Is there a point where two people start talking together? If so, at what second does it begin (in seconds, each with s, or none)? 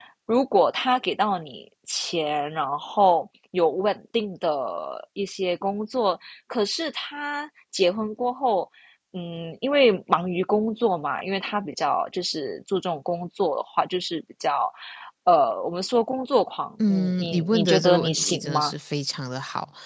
16.8 s